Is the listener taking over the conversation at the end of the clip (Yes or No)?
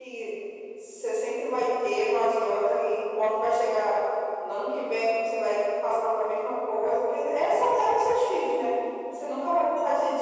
No